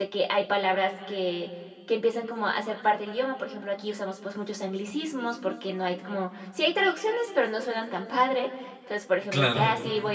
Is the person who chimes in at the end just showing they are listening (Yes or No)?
Yes